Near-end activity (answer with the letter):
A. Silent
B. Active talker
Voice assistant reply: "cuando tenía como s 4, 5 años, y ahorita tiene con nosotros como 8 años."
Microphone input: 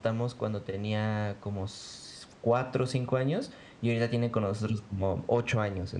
A